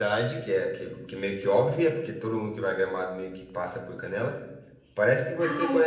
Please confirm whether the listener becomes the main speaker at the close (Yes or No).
No